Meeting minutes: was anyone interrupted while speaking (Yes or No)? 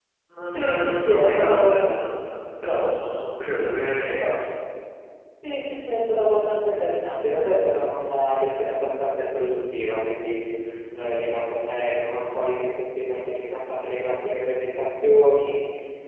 Yes